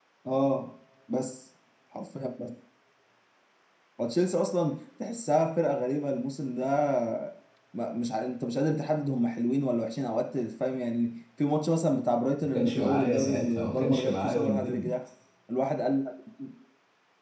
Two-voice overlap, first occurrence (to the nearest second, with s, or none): 12 s